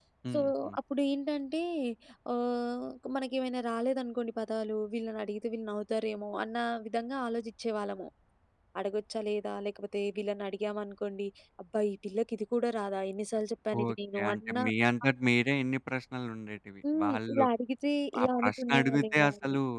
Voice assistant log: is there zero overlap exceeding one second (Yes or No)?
No